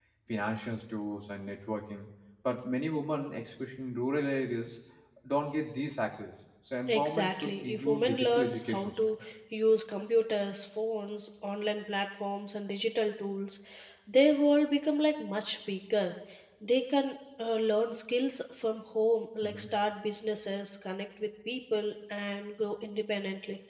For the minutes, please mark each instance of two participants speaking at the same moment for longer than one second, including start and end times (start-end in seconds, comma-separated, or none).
6.9-9.1